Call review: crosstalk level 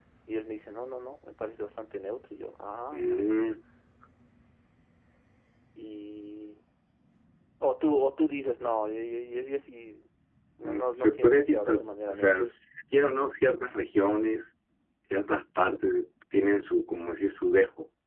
present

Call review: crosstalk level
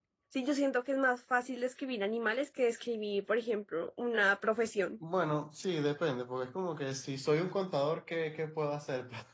none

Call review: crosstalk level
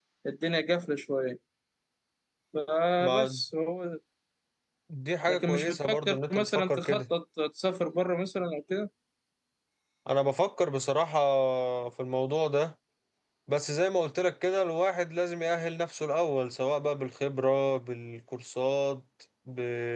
present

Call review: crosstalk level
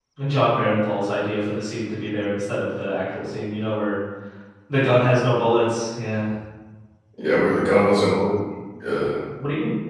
none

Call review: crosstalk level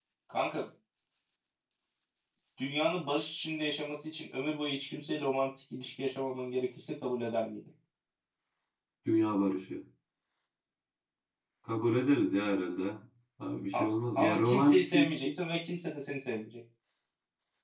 present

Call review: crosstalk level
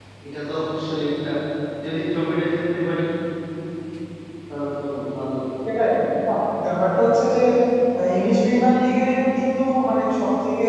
none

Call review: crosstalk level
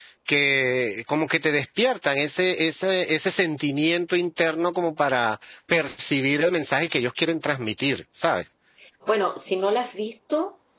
none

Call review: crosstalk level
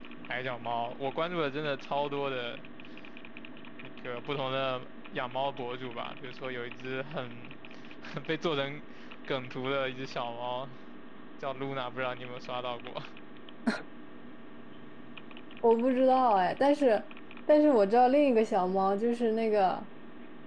none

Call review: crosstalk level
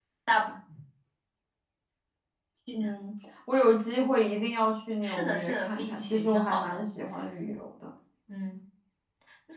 present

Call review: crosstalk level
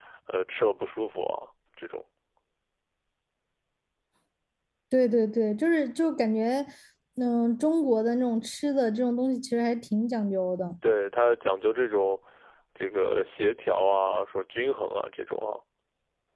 none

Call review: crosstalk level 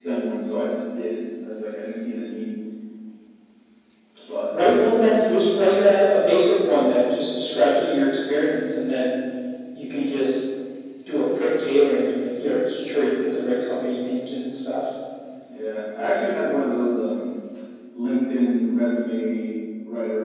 none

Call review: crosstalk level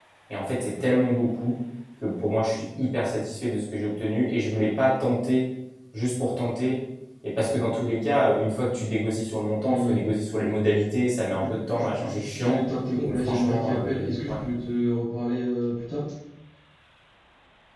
present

